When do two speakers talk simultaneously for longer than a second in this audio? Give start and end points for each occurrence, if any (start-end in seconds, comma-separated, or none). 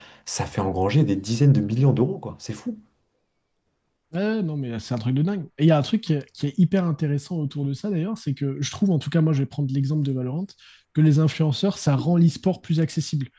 none